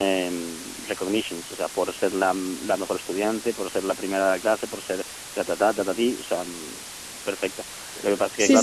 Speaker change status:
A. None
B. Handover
B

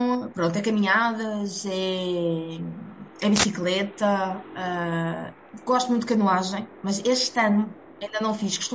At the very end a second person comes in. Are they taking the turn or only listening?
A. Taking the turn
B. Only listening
B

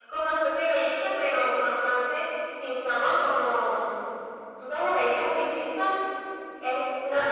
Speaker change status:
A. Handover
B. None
B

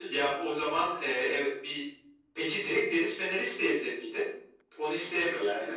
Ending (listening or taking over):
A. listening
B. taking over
B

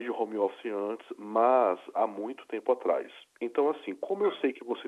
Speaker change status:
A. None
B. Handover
A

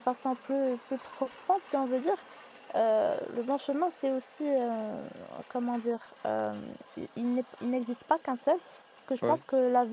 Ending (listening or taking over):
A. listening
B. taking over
A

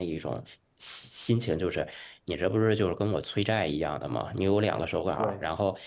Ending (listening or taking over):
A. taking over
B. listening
B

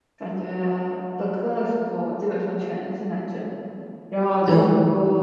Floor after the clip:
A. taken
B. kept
B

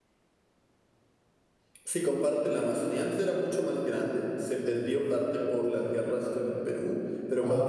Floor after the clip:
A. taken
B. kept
B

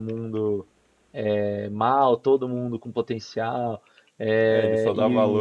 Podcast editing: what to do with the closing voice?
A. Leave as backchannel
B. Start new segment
B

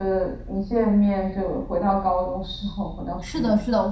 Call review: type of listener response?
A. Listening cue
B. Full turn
B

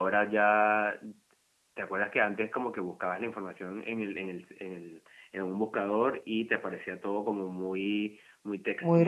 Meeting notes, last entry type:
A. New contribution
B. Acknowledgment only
A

